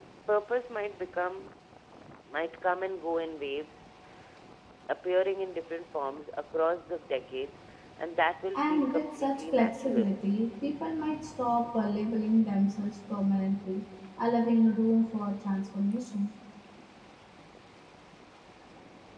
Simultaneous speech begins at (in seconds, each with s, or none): 8.5 s